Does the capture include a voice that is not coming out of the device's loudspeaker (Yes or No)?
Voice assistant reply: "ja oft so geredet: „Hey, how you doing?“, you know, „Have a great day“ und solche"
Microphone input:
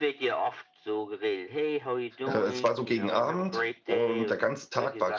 Yes